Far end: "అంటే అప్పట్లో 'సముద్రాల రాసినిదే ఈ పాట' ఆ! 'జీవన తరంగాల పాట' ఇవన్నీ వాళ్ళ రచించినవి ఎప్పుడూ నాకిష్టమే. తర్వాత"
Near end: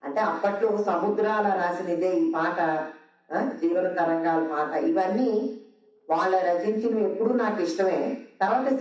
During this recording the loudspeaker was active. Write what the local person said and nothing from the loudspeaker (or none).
none